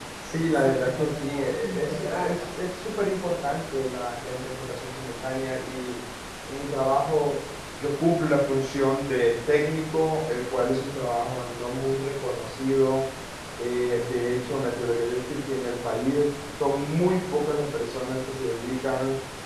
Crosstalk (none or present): present